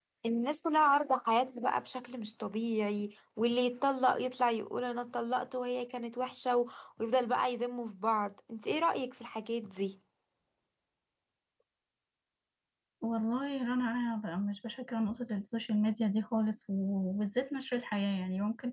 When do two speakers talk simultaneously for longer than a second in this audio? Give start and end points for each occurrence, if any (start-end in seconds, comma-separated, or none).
none